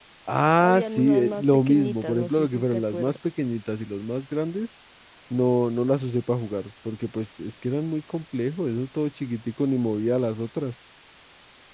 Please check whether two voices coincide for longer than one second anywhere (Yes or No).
Yes